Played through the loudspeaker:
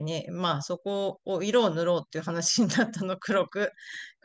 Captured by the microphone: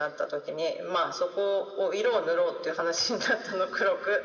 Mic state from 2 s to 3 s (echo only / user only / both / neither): echo only